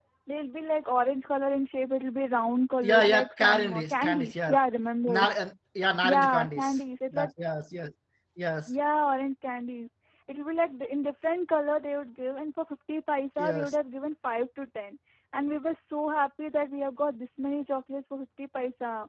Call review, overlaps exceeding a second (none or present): present